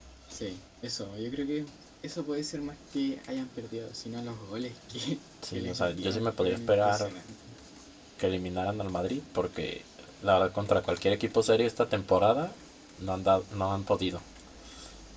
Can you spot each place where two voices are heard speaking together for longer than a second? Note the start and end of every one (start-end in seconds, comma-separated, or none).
5.5-7.1